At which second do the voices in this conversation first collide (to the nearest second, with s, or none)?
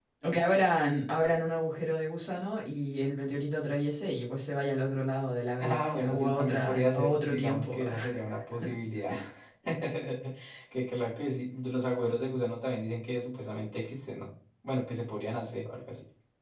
6 s